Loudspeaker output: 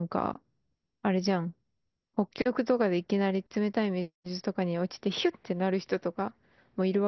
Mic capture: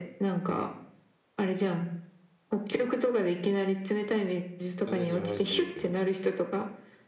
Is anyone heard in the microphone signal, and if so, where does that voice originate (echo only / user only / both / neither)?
both